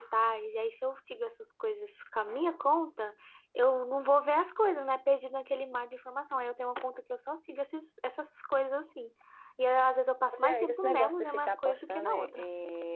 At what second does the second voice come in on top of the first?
10.3 s

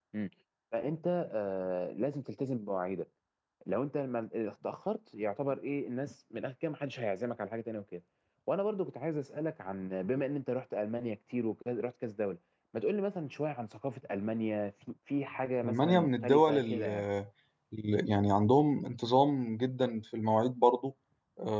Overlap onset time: 15.6 s

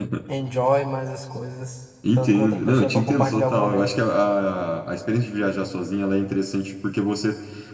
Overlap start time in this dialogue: 2.0 s

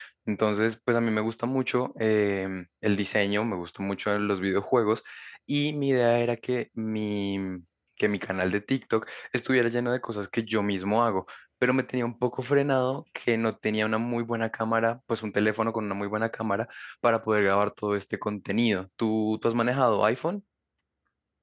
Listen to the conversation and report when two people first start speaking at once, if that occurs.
none

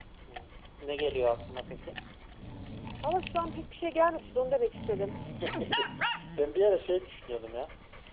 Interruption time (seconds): none

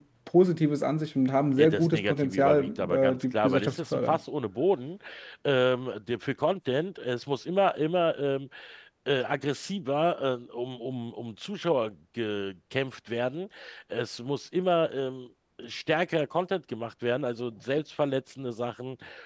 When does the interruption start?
1.6 s

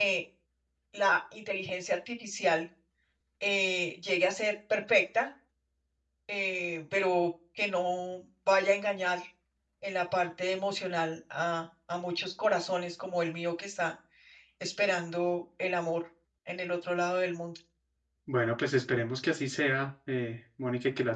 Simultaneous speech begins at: none

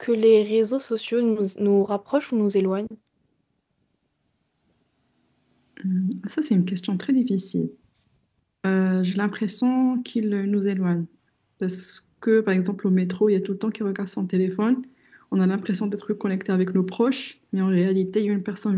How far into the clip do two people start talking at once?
none

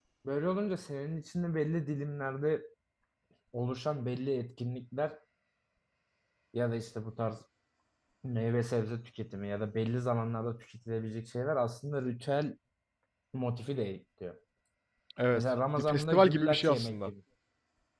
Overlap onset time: 15.3 s

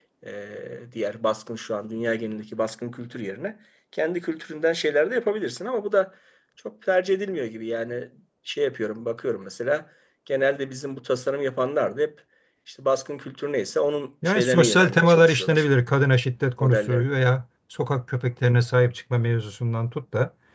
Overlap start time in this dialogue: 14.2 s

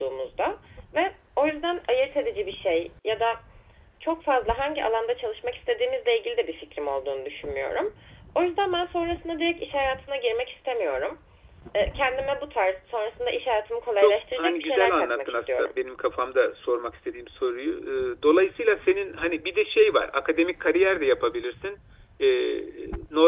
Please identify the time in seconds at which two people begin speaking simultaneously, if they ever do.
14.0 s

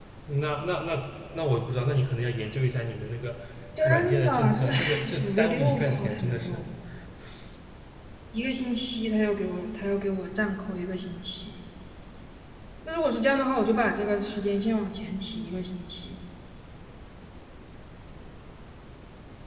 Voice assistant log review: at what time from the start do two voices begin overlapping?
3.8 s

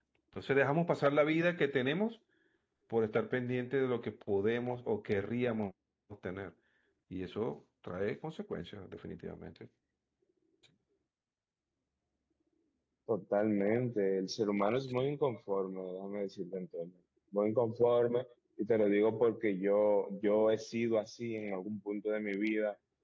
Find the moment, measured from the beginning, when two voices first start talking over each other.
none

